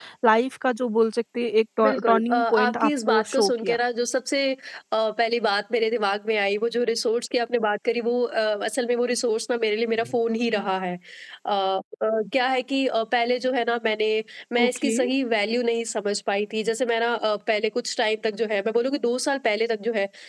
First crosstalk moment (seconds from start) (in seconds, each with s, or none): 1.8 s